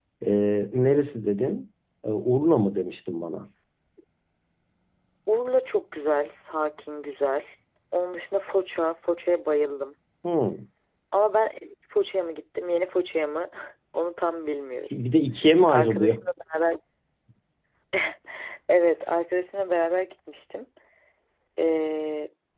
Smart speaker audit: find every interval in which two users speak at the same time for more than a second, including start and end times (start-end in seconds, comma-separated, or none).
none